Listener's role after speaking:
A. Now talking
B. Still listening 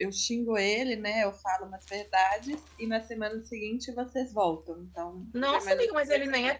A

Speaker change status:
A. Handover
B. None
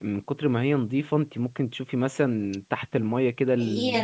A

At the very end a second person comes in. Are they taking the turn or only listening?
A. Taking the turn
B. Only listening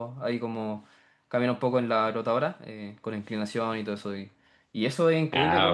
B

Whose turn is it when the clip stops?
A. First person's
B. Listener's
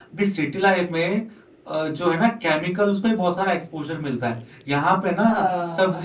A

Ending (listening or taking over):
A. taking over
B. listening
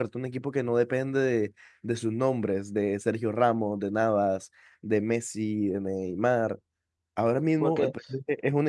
B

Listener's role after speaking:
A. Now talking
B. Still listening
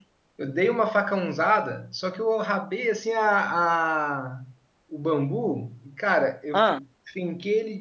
B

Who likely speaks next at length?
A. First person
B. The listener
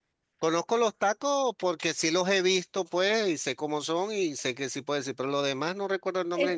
B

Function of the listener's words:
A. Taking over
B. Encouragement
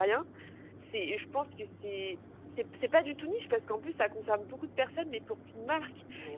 B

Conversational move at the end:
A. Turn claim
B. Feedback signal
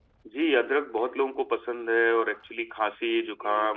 B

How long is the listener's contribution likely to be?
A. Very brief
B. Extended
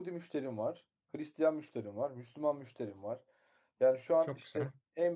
A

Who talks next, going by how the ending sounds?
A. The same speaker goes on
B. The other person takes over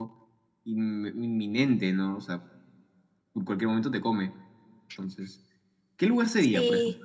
B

